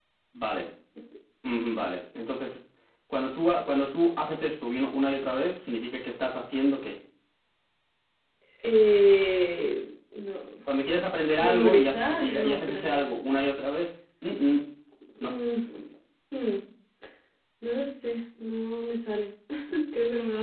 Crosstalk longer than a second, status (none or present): present